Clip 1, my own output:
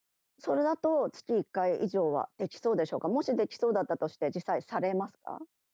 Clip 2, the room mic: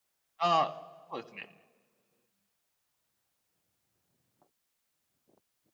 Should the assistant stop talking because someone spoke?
Yes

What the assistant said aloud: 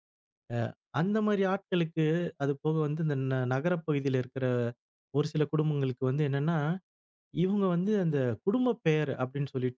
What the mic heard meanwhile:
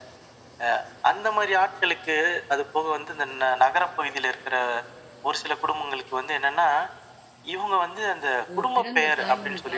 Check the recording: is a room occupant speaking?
Yes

